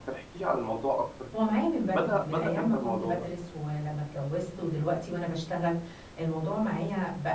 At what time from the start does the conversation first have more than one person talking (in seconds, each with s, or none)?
1.9 s